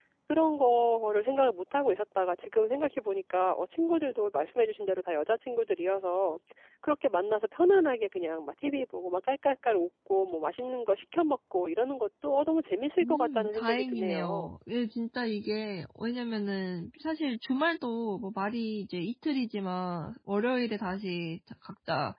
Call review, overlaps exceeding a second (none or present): present